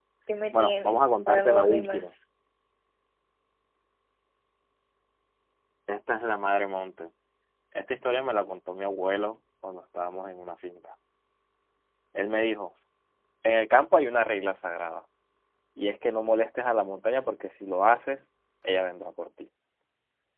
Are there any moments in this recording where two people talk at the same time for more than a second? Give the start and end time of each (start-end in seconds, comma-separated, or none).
0.5-2.1